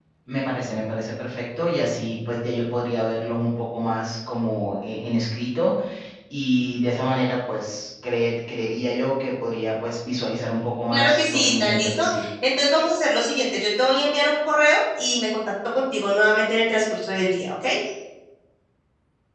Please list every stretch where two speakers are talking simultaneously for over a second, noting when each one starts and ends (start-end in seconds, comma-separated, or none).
10.9-12.2